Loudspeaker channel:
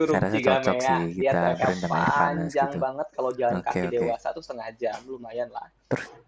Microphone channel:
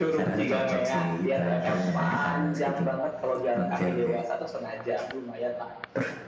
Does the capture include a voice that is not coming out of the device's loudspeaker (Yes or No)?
No